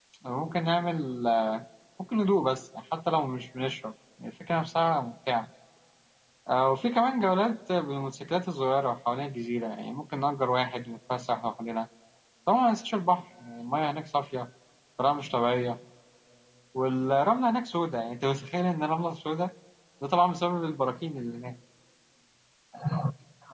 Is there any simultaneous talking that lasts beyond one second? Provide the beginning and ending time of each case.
none

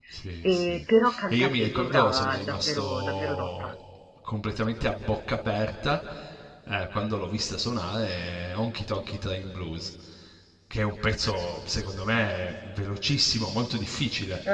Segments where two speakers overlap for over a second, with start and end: 1.3-3.7

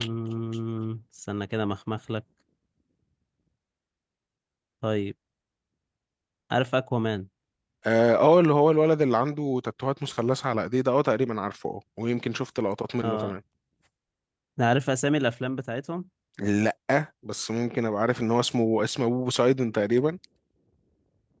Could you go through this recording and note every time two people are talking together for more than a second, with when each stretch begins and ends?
none

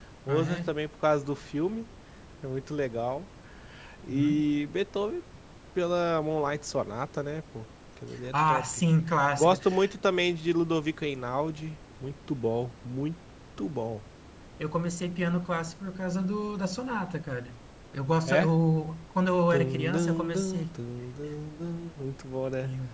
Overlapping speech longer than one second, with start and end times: 19.5-20.8

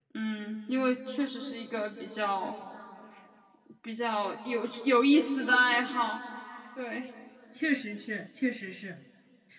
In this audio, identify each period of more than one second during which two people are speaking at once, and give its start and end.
none

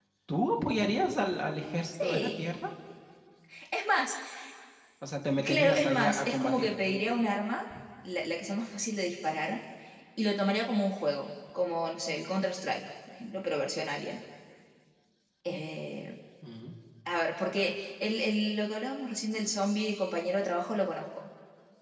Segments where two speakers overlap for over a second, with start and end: 5.4-6.7

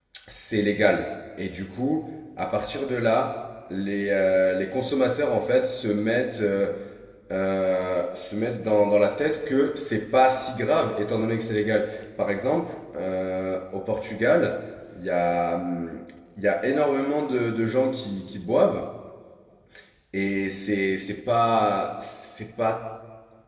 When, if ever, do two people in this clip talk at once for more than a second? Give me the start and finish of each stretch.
none

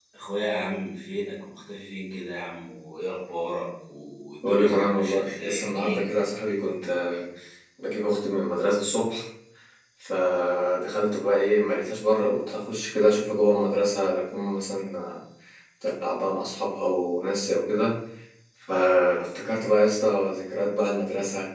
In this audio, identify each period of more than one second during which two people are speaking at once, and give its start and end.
4.4-6.1

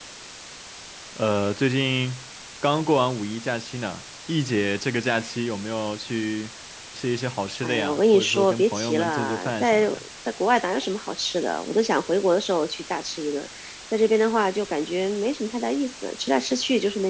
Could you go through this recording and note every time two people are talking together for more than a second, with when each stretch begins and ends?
7.6-10.0

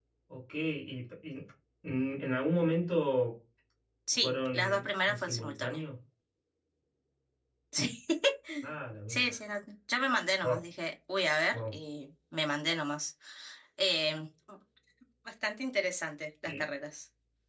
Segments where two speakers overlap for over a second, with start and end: 4.2-5.8

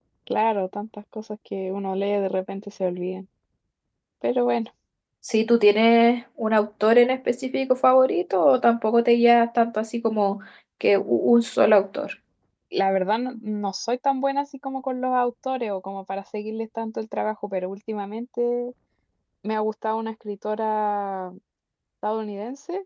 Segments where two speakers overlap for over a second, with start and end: none

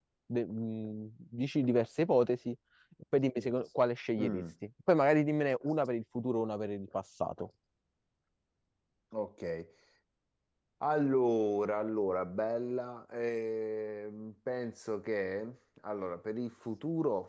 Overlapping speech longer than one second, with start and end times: none

